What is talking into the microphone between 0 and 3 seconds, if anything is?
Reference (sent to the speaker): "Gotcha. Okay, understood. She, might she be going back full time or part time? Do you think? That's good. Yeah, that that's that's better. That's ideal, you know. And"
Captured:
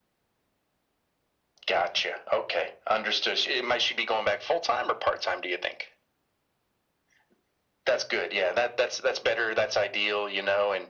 echo only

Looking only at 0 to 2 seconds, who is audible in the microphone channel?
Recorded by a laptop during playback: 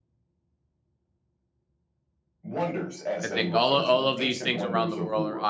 neither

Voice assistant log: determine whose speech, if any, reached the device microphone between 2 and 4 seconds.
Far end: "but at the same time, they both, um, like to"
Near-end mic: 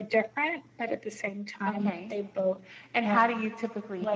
both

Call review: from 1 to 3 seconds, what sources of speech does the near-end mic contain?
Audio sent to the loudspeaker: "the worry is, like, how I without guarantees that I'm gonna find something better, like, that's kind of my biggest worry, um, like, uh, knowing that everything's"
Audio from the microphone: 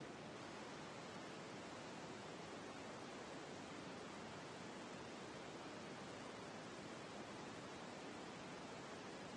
neither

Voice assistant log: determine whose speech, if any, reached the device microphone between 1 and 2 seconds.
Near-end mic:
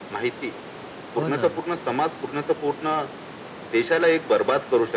both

